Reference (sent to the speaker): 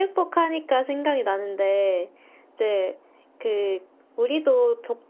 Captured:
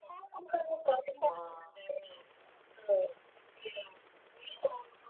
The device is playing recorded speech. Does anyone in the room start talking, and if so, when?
1.2 s

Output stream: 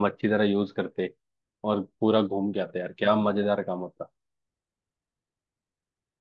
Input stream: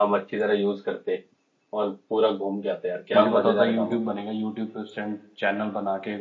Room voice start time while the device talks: 3.1 s

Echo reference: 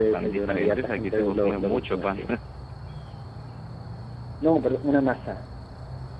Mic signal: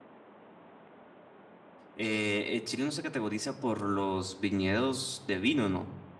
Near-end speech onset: 1.9 s

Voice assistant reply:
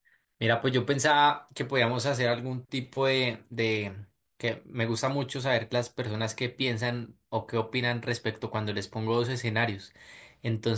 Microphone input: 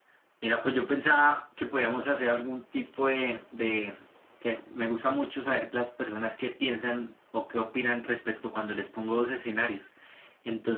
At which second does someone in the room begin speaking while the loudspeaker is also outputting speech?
none

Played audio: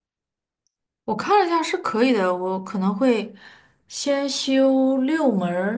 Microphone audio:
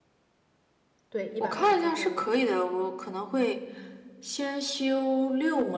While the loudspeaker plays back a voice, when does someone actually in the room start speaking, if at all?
1.1 s

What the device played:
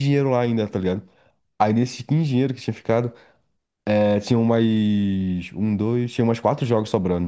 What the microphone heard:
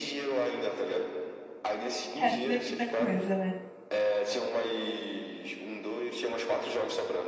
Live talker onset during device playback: 2.1 s

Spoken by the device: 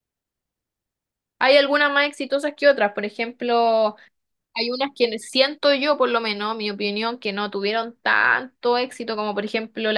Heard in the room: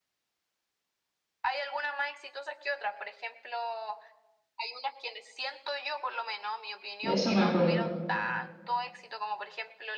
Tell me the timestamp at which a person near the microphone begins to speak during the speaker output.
7.0 s

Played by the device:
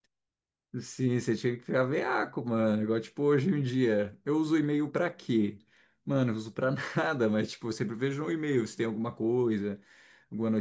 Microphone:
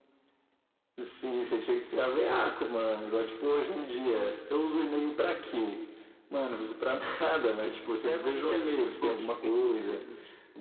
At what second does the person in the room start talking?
8.0 s

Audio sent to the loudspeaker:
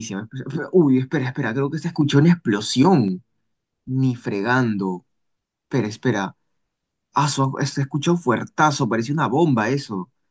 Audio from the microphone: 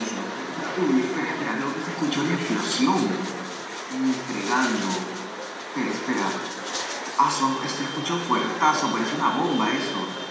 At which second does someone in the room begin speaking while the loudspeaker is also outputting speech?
none

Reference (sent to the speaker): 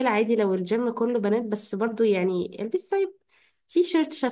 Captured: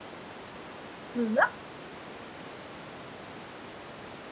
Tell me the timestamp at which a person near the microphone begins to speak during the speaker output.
1.1 s

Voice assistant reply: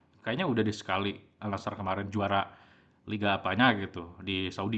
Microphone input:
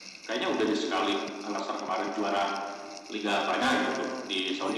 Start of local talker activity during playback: 3.6 s

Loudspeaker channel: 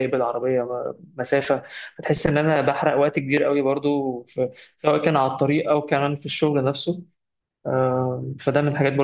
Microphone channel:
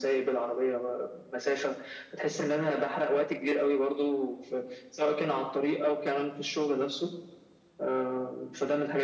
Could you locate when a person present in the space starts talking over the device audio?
none

